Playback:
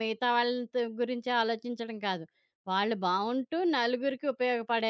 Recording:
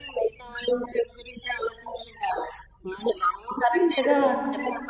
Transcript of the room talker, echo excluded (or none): కరెక్ట్‌గా చెప్